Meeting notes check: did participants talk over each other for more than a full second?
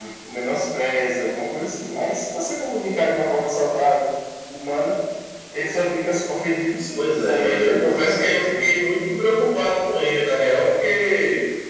Yes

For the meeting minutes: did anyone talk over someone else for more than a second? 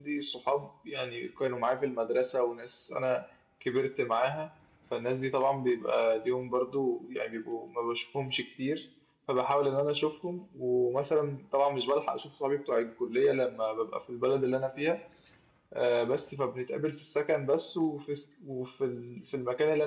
No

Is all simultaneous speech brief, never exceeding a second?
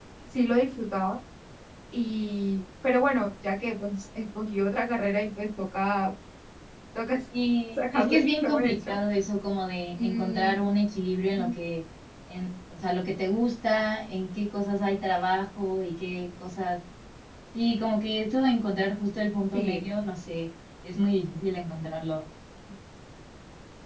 No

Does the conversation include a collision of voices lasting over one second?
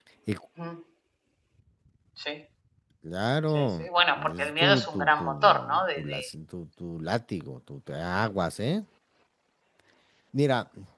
Yes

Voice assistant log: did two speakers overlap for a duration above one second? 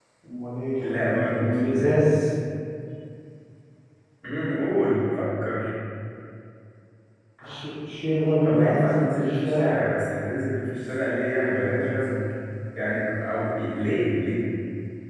Yes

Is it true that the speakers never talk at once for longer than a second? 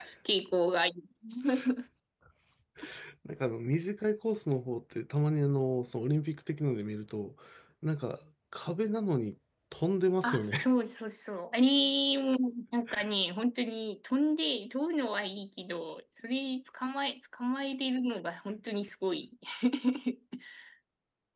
Yes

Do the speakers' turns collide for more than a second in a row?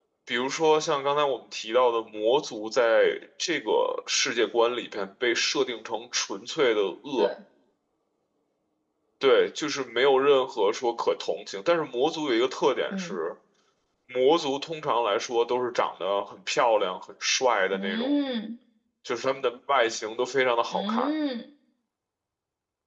No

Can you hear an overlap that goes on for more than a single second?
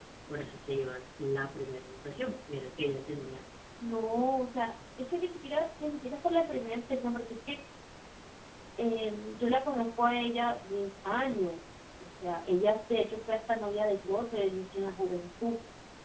No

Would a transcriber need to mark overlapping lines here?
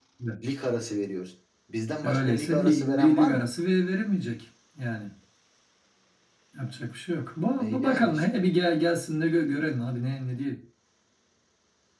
Yes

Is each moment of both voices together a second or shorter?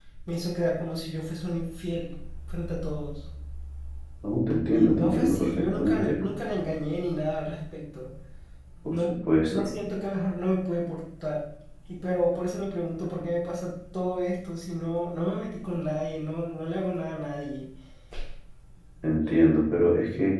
No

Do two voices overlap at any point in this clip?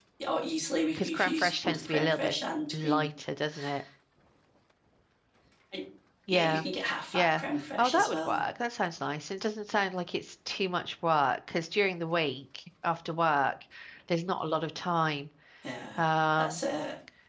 Yes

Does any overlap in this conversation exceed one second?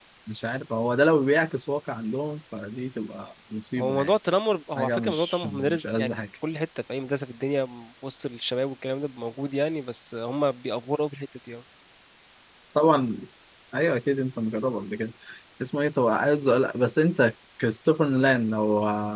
Yes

